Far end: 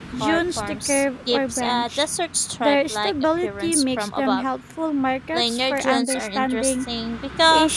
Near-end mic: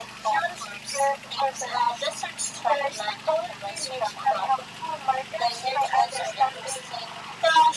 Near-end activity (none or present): none